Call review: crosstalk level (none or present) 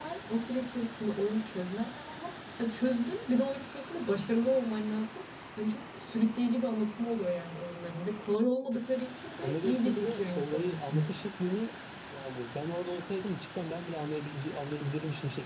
present